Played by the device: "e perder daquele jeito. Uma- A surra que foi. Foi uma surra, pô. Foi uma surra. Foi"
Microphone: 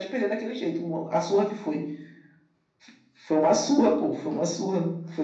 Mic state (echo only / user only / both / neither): echo only